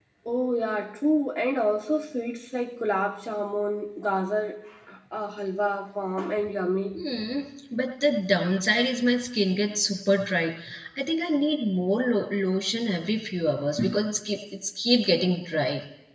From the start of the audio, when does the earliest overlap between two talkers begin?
none

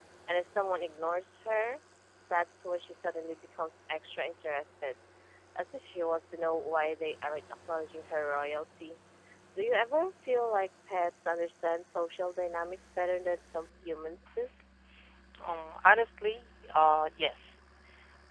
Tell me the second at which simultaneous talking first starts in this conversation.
none

